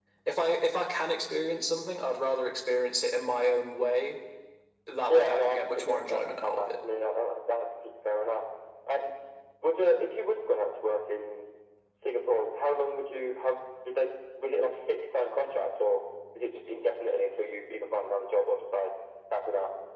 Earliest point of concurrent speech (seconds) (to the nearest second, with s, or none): 5 s